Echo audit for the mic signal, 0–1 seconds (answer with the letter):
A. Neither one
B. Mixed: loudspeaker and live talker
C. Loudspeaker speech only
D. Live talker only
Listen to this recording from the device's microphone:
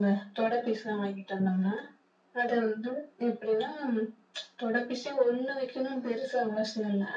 C